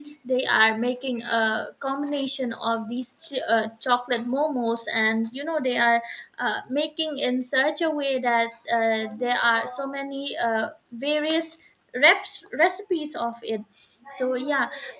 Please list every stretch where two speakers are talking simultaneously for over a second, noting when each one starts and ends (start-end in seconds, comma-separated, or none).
none